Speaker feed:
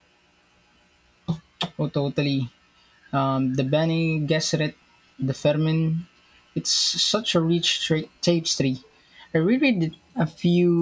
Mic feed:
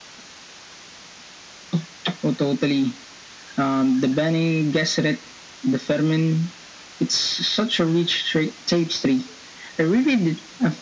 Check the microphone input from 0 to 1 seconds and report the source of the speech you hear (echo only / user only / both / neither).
neither